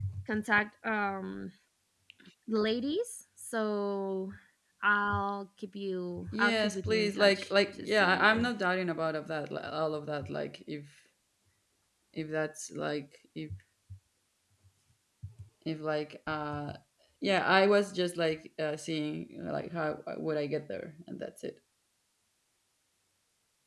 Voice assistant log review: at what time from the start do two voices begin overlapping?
6.2 s

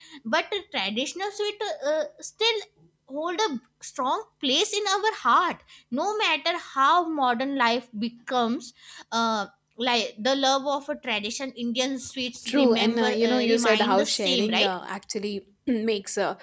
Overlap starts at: 12.4 s

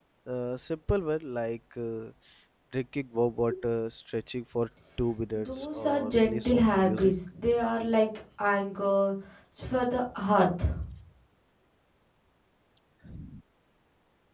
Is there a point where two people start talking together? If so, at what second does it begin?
5.3 s

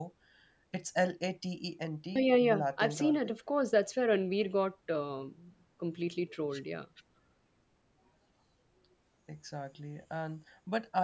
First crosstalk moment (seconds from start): 2.1 s

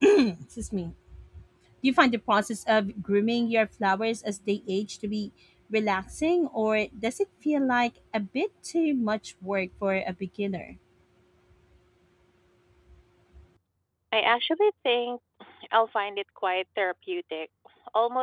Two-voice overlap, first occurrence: none

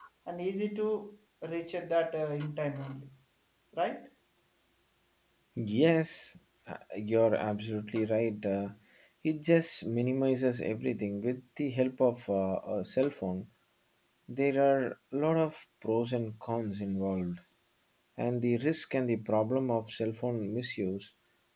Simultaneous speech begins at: none

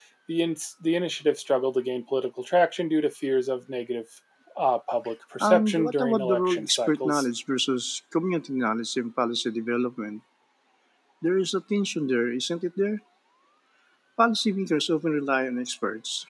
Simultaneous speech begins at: 5.4 s

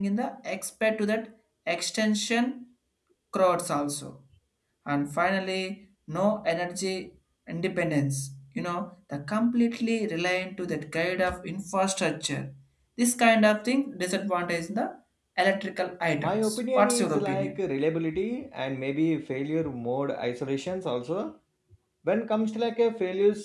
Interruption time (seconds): 16.2 s

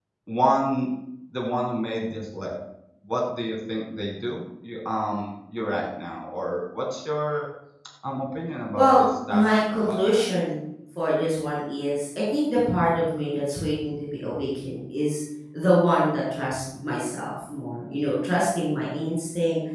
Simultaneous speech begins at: 8.8 s

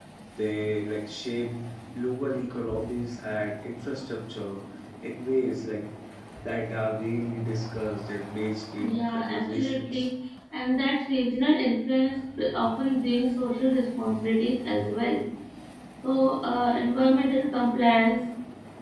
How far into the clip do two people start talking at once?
8.8 s

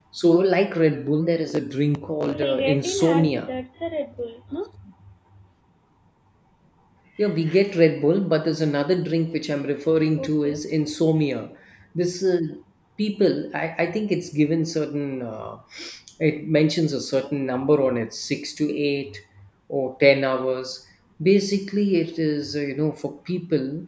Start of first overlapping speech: 2.2 s

